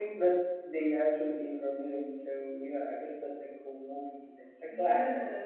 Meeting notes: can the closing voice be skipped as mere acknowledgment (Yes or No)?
No